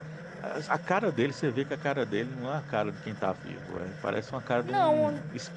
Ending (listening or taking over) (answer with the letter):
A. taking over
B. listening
A